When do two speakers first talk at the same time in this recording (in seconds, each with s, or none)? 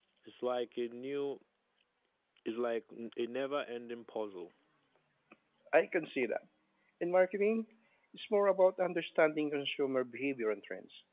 none